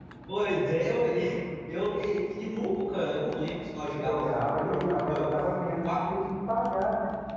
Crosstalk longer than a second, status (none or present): present